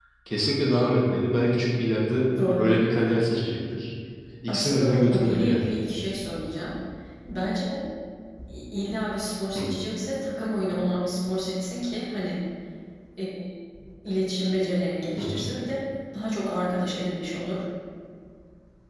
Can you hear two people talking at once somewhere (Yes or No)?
Yes